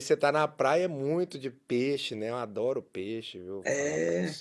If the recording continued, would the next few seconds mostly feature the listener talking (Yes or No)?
Yes